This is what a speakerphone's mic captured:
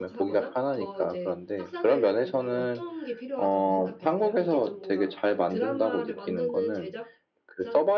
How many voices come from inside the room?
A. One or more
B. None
A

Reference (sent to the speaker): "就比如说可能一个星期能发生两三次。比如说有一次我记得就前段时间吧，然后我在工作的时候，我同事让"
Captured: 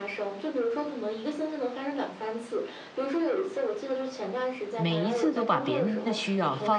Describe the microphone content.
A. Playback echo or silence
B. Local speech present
B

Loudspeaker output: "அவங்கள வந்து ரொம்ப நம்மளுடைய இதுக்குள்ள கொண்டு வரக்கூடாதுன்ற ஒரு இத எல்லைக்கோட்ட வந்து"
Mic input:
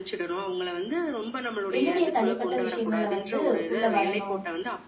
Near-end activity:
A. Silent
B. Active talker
B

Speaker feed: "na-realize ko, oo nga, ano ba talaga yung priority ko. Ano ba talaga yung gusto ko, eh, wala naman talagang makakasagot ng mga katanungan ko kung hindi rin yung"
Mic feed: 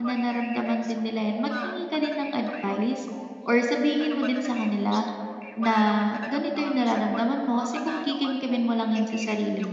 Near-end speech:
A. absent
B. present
B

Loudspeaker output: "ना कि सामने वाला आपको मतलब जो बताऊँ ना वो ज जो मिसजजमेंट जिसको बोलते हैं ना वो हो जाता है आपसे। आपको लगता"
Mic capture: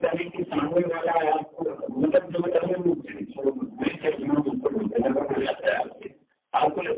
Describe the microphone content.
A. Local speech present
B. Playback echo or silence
B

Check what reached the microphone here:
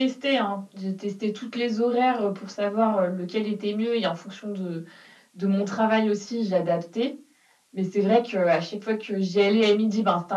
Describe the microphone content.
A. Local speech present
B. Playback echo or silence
B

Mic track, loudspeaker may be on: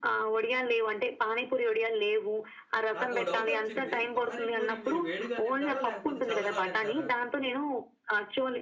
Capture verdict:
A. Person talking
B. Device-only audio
A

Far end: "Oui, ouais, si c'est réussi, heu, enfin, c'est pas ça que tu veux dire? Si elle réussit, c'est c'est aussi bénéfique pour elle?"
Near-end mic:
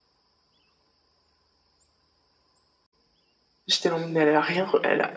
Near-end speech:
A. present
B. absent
A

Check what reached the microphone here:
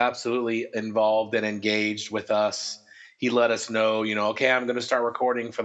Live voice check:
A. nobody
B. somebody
B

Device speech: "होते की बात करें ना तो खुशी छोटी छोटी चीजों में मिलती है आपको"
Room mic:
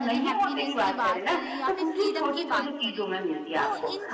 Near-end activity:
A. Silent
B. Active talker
B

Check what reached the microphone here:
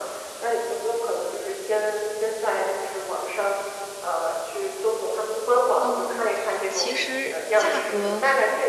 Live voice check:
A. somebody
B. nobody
A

